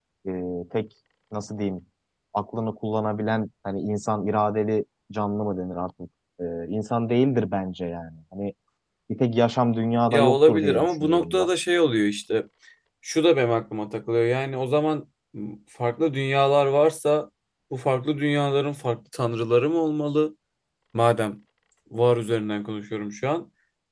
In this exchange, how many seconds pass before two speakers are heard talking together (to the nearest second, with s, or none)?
10 s